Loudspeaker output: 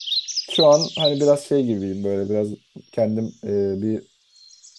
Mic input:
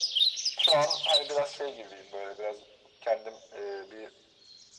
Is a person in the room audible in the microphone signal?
No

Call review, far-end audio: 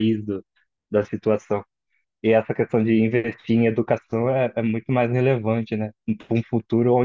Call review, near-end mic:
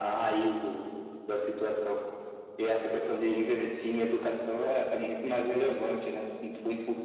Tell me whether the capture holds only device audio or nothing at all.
Yes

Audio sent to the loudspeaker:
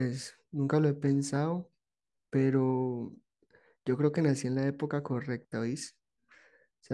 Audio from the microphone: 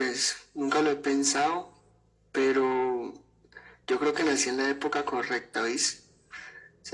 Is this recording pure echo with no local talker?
Yes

